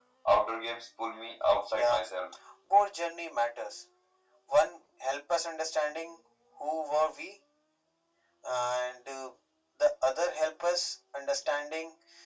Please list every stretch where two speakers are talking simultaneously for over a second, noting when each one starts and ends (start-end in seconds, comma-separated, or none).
none